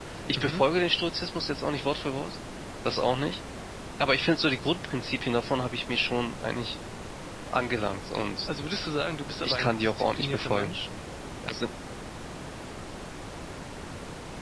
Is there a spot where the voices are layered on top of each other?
Yes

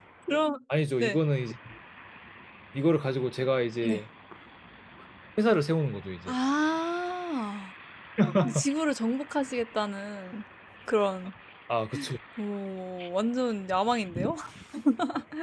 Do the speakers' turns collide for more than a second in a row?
No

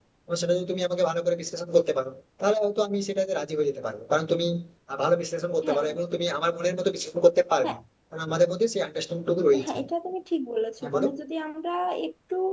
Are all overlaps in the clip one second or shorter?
Yes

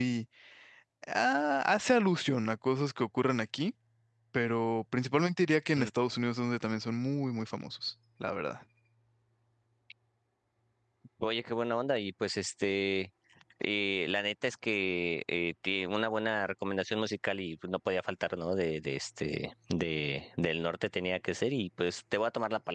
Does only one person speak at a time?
Yes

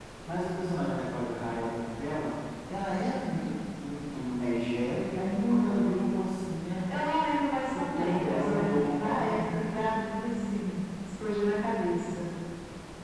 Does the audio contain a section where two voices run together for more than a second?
Yes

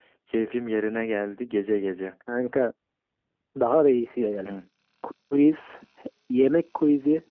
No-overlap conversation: Yes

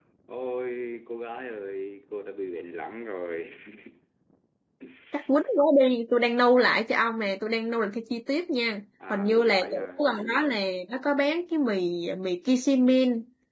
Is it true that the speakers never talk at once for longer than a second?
No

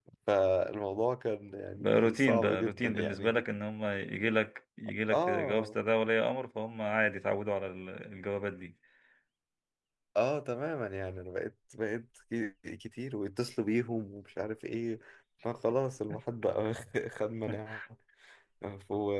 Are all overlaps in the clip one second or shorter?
No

